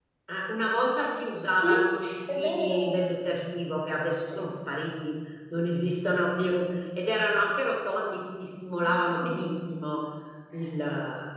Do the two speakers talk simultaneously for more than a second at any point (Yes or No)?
Yes